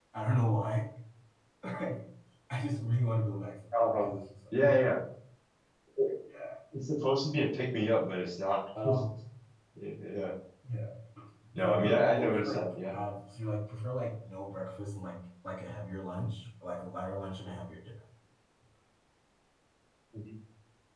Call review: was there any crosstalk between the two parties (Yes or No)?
Yes